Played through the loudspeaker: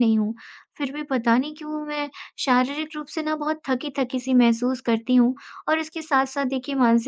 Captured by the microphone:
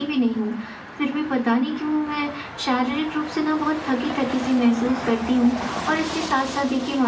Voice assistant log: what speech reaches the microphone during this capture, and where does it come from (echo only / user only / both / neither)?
echo only